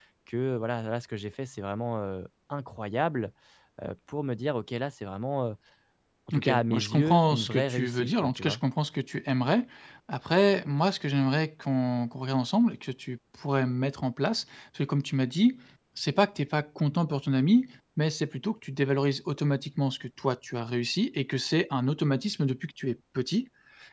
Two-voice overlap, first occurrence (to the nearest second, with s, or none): 6 s